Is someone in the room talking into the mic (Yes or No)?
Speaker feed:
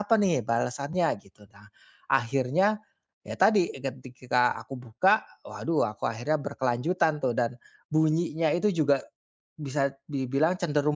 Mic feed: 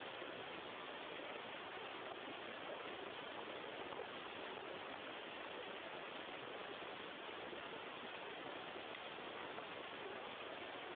No